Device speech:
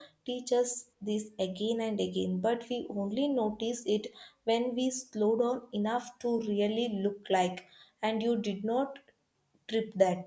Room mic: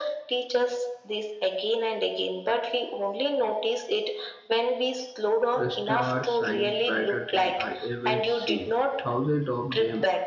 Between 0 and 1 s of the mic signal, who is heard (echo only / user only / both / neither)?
echo only